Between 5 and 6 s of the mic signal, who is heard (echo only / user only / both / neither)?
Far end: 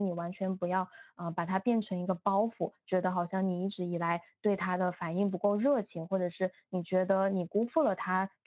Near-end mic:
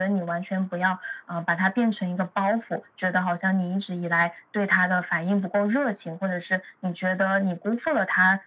echo only